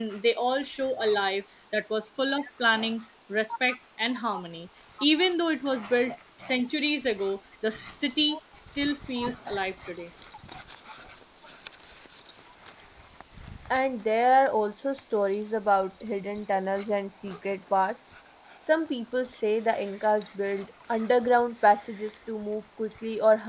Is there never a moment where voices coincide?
Yes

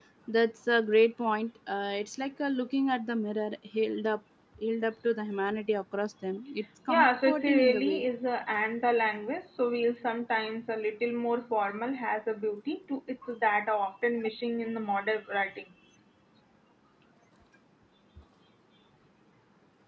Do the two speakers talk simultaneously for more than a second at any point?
Yes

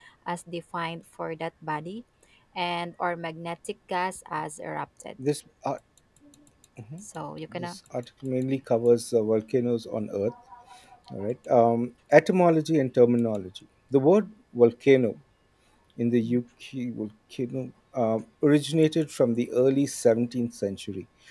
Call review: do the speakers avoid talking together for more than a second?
Yes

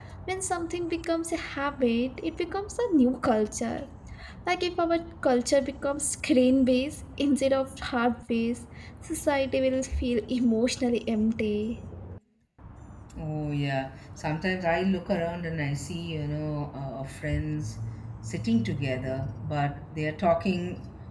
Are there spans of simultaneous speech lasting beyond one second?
No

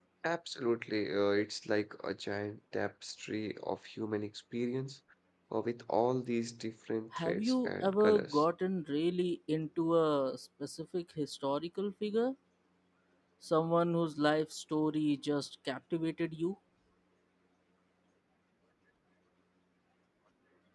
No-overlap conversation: No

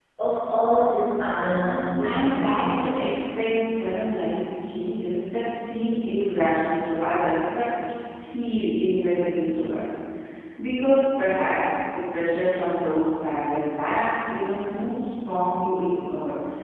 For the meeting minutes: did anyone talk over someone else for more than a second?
Yes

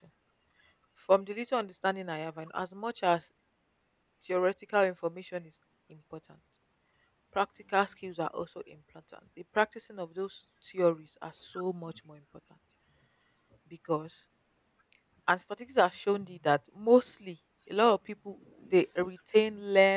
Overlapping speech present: No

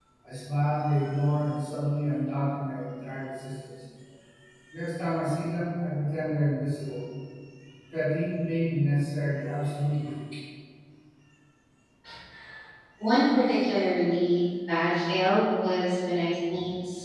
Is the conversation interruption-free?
Yes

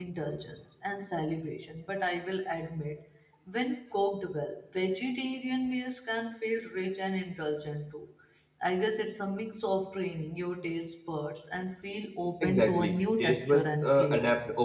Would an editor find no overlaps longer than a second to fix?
No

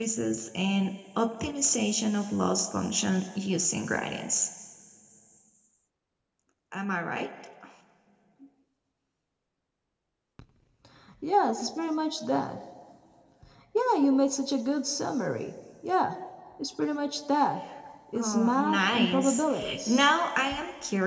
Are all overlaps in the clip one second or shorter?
No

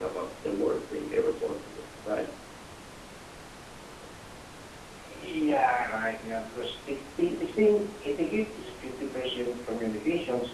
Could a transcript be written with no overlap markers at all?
Yes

